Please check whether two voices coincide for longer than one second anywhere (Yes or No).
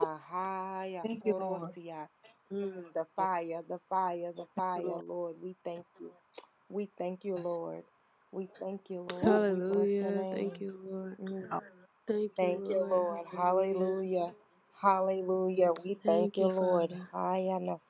Yes